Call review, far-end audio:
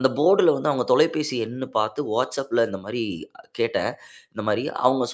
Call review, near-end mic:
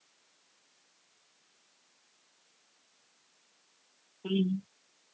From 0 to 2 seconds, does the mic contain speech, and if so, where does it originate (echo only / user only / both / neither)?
neither